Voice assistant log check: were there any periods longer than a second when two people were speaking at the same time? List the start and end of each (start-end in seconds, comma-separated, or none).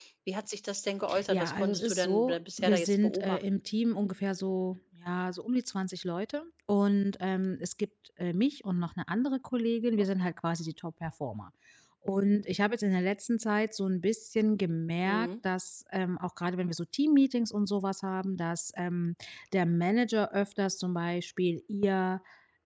1.3-3.4